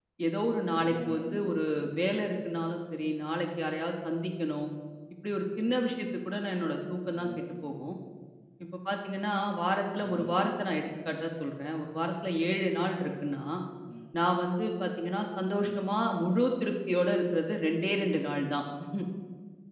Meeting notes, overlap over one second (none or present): none